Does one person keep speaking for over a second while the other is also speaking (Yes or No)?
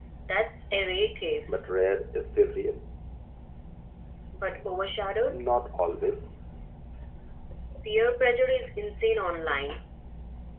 No